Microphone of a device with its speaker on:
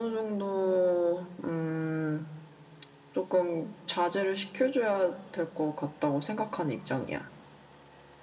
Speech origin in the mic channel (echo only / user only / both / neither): echo only